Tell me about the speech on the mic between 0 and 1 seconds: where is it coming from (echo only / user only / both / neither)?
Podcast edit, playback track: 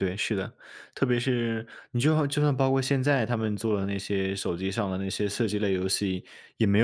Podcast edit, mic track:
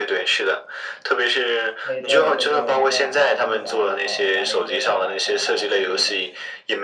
echo only